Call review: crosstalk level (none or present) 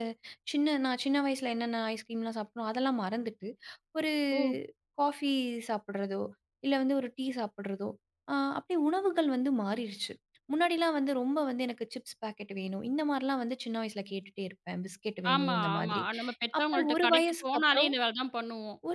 present